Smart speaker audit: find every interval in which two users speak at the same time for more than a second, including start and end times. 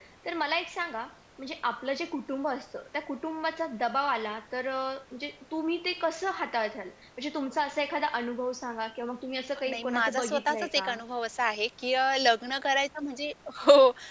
9.7-10.9

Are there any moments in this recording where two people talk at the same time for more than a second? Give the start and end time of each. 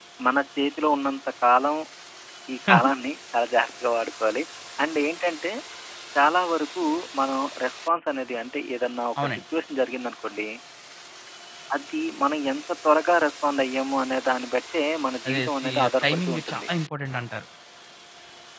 15.3-16.7

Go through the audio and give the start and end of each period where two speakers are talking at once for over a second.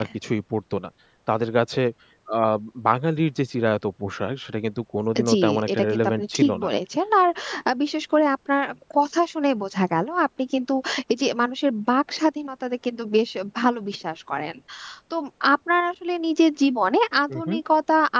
5.3-6.7

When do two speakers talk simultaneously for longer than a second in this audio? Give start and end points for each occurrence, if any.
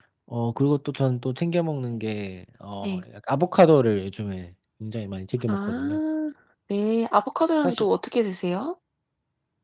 none

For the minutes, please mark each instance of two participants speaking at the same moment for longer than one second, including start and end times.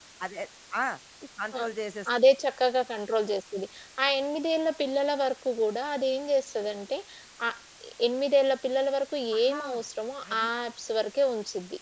none

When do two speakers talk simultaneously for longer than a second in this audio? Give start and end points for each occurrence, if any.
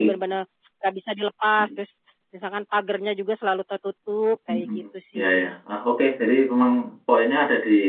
none

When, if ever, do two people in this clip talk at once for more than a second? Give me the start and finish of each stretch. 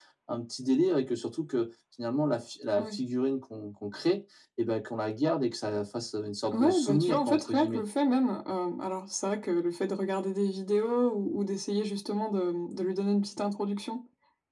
6.5-7.8

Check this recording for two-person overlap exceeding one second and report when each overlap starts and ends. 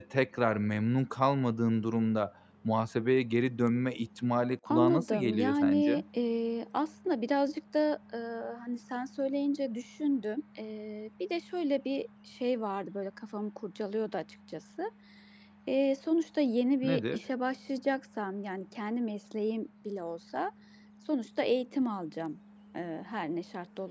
4.7-6.0

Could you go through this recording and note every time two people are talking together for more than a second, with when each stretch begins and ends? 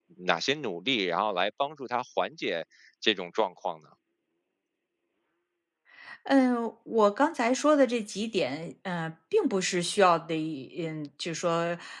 none

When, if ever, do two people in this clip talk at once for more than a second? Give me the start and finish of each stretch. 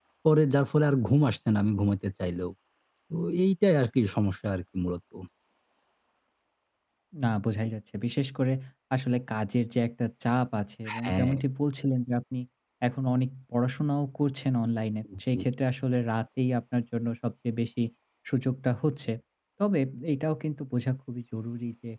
none

